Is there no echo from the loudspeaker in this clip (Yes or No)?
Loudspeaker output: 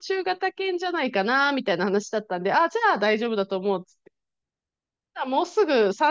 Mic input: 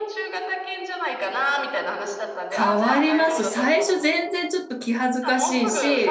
No